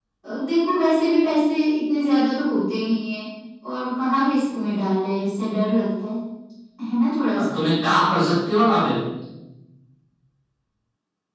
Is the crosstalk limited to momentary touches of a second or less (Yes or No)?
Yes